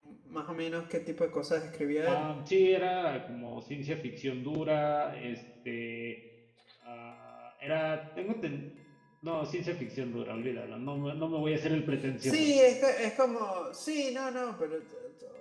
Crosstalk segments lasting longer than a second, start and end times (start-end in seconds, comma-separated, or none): none